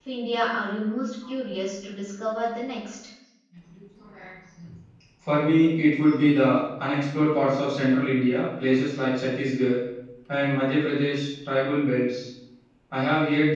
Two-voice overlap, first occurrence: none

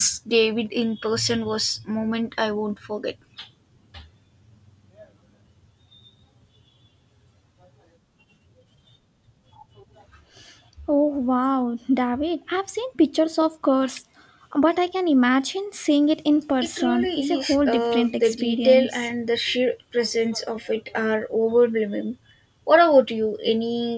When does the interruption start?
16.8 s

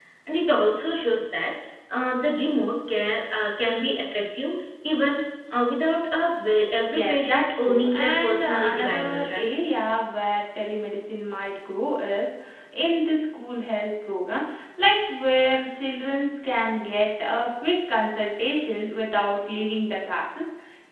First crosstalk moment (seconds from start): 6.9 s

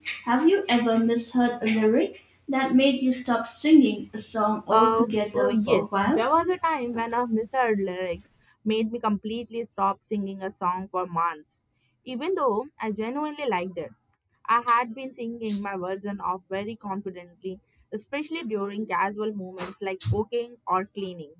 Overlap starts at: 4.7 s

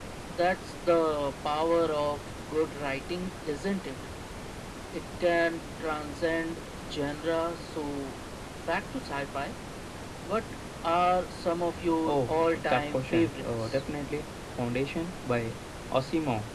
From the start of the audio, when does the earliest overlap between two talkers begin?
12.1 s

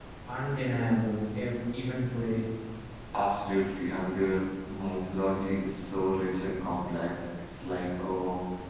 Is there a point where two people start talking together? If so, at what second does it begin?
none

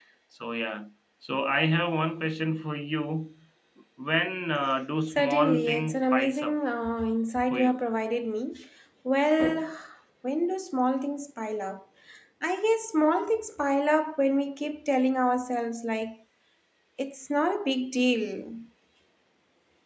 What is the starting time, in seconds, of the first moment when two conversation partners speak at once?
5.1 s

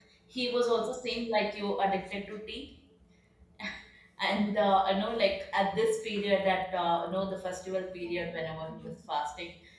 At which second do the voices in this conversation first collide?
none

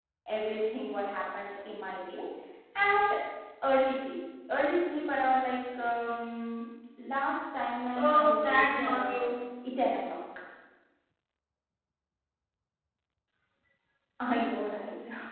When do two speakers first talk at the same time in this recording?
7.9 s

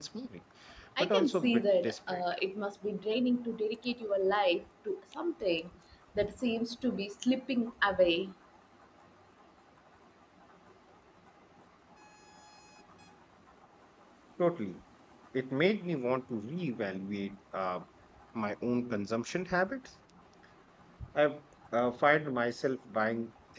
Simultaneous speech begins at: 1.0 s

